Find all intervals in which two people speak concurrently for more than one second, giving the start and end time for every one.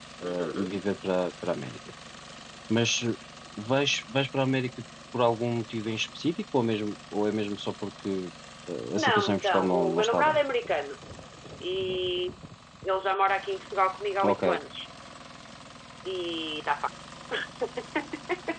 9.0-10.4

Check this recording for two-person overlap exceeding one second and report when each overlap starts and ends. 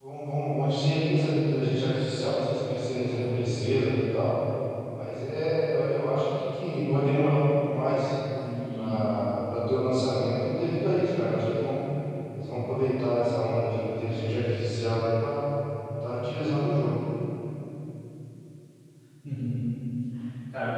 none

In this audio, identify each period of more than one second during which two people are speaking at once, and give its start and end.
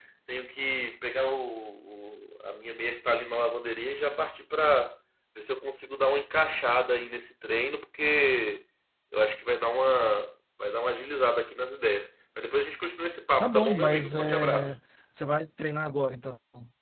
13.4-14.8

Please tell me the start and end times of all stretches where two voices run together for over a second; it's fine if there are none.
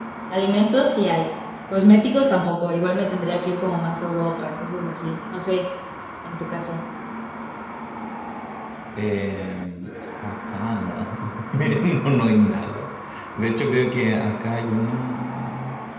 none

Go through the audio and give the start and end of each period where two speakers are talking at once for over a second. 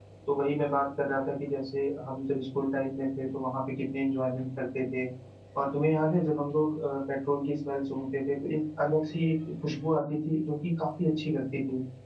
none

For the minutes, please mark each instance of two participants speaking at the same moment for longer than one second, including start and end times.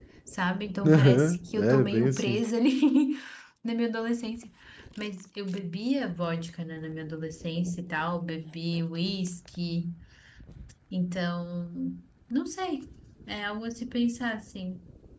0.9-2.4

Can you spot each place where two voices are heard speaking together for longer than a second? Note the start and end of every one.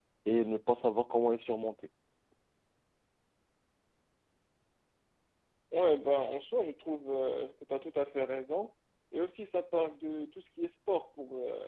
none

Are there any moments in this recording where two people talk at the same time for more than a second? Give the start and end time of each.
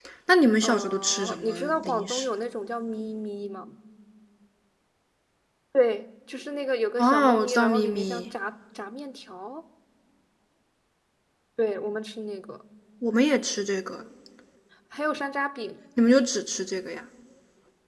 0.6-2.2, 7.0-8.3

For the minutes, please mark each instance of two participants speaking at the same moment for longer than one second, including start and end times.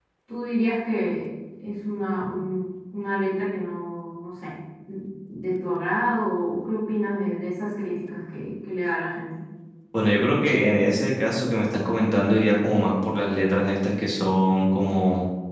none

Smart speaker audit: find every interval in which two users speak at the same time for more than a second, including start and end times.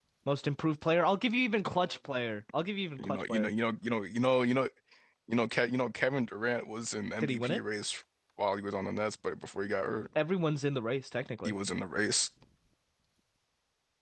none

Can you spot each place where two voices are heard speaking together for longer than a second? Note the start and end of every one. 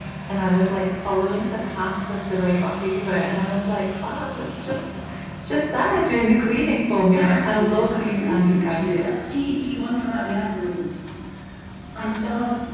7.1-9.1

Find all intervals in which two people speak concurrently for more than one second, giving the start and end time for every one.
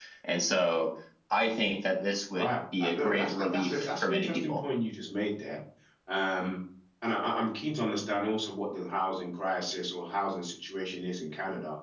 2.3-4.6

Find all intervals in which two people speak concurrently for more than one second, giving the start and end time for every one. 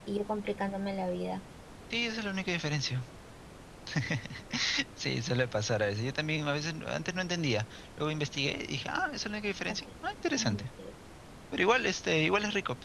none

